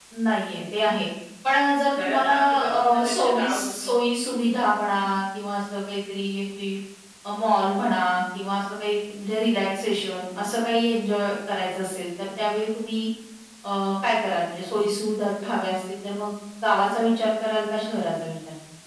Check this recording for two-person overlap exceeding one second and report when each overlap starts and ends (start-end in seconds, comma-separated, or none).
1.9-4.0